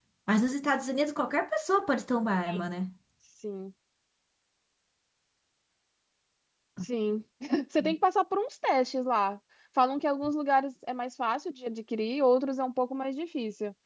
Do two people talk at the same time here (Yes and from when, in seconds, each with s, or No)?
No